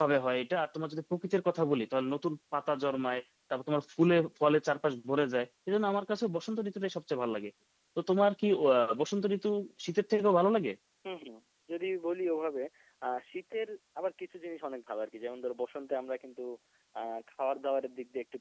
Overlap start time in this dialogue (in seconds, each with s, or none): none